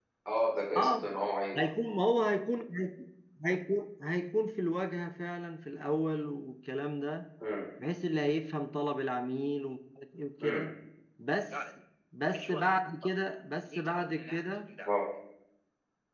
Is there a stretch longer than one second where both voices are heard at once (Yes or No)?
No